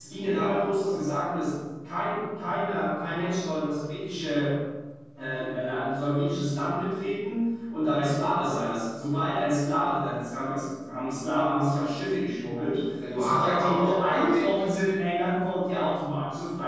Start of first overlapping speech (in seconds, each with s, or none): 13.0 s